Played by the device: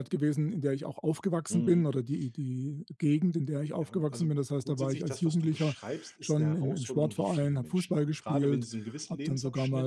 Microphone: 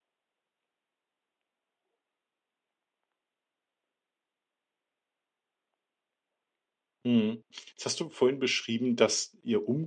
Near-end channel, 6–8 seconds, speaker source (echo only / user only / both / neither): user only